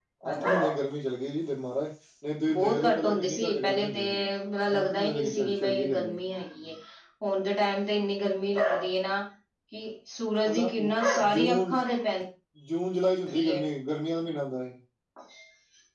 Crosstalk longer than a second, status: present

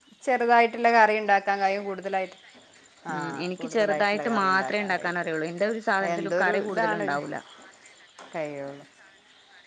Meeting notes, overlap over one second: present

